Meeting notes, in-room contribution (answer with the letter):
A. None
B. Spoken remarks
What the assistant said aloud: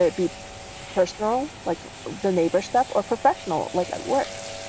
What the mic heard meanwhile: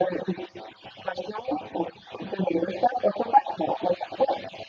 A